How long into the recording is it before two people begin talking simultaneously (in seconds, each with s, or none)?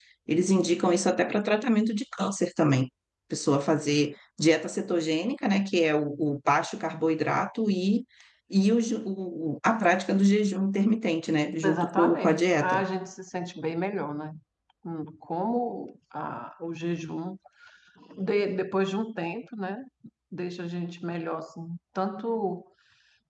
11.6 s